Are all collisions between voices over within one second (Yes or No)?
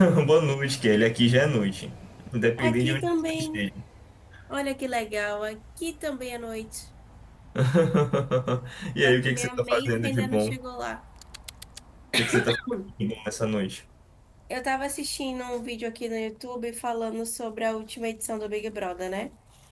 No